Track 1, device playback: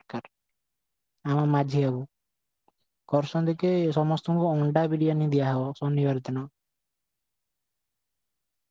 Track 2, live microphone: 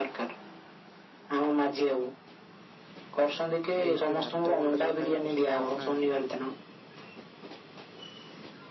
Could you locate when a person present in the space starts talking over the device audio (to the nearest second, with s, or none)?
4 s